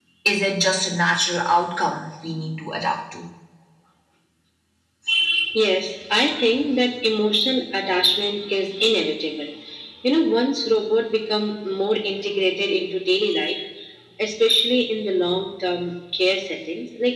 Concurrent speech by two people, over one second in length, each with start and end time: none

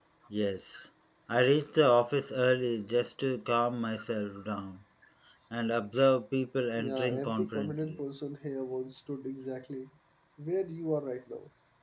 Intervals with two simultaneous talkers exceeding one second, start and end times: 6.8-8.0

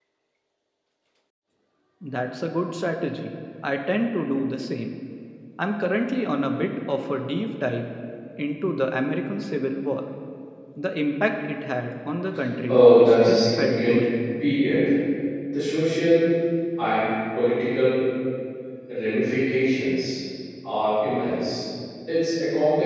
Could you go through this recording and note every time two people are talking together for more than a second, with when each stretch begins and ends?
12.7-14.0

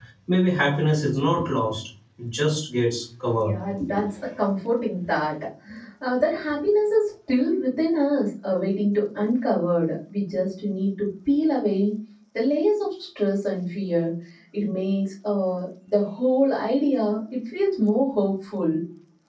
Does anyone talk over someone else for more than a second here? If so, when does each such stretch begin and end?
none

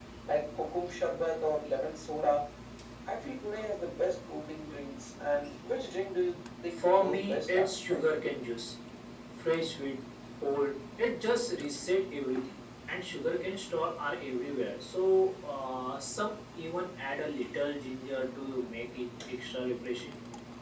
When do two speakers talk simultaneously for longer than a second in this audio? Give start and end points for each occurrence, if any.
6.8-8.1

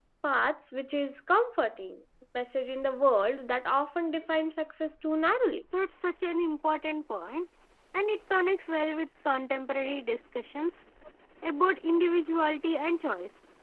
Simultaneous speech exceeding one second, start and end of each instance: none

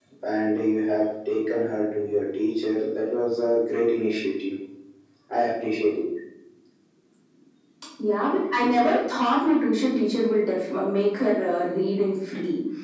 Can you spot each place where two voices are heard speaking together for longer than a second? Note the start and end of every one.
none

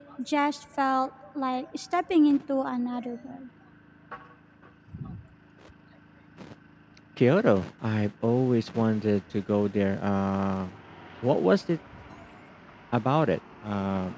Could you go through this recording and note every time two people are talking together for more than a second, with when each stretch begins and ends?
none

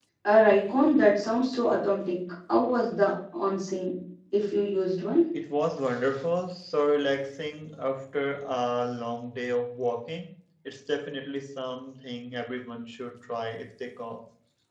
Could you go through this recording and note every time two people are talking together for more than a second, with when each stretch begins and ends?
none

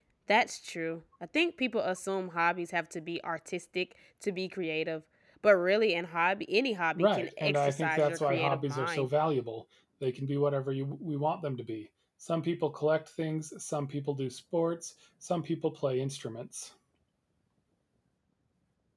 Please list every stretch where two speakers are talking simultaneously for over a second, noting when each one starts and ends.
7.0-9.1

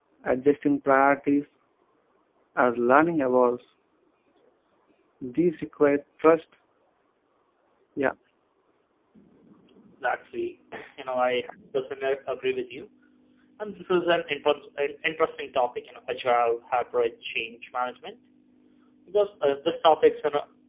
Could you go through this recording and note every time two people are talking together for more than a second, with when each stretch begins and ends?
none

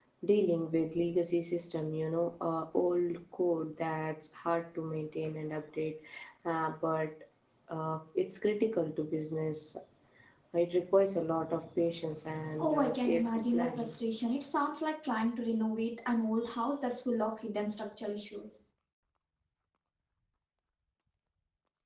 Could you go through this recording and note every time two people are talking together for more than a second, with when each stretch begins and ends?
12.6-13.9

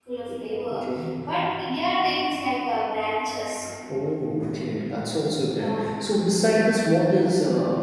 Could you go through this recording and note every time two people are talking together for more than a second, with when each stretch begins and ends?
none

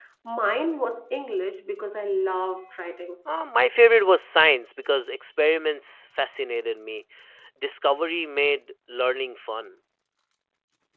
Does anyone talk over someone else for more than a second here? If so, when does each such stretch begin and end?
none

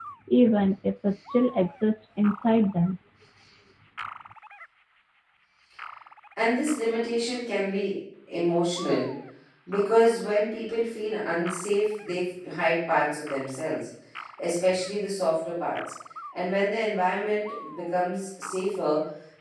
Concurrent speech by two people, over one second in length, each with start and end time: none

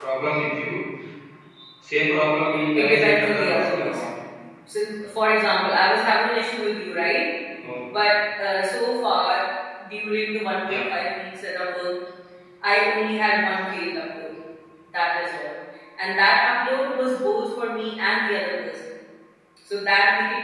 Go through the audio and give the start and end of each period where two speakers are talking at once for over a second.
2.8-4.1

